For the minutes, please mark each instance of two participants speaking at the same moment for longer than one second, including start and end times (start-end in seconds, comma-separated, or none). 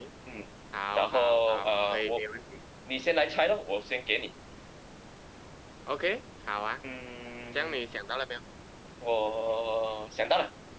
0.9-2.2